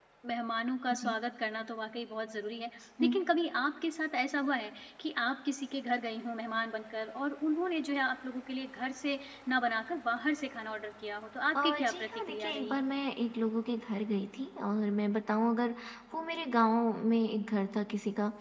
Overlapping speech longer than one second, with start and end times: 11.6-12.8

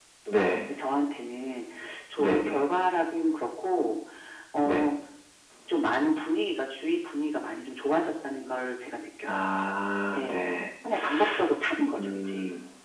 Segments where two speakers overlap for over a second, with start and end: none

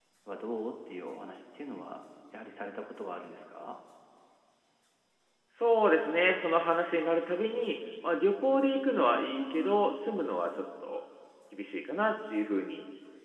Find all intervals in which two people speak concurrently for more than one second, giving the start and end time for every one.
none

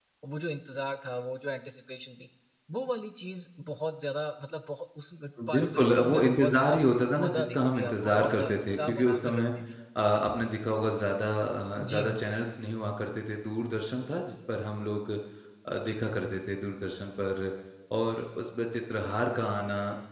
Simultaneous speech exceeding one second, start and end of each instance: 5.5-6.8, 7.2-9.4

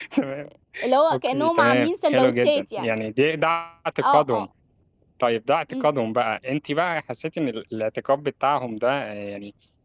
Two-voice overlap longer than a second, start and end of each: 1.1-3.0

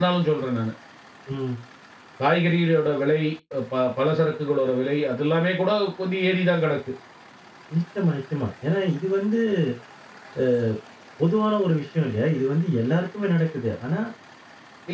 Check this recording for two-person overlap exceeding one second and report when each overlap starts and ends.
none

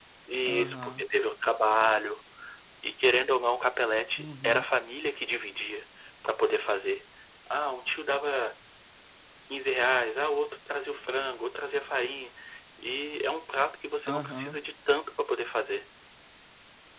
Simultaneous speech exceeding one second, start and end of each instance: none

